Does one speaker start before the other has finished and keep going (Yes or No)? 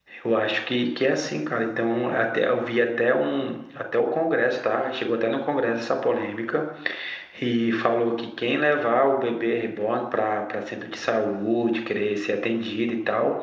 No